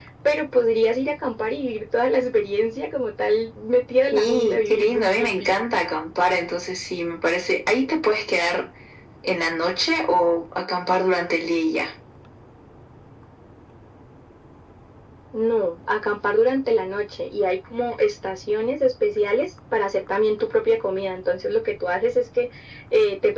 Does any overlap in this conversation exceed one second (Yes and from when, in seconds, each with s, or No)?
Yes, from 4.1 s